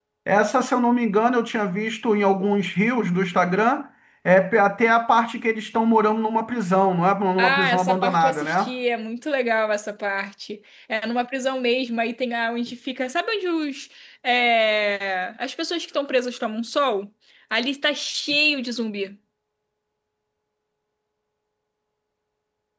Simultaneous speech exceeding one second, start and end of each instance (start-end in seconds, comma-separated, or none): 7.4-8.7